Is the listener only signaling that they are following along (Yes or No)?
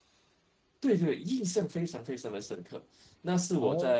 Yes